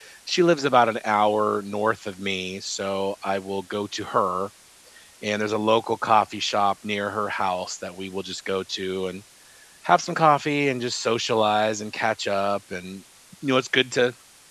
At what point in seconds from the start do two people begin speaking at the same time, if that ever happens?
none

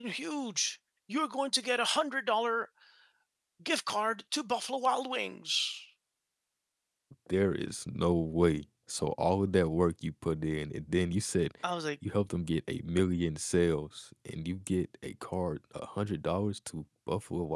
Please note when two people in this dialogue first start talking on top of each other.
none

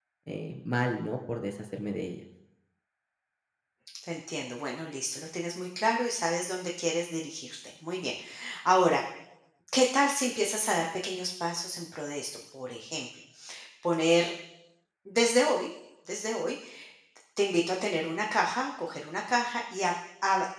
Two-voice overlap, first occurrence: none

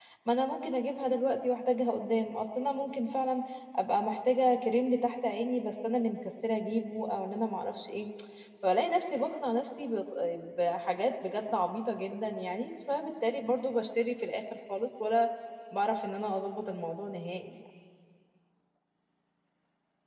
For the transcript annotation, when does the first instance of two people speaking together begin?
none

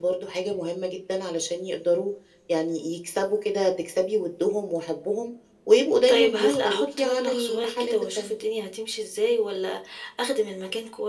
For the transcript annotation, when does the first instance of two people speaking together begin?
6.1 s

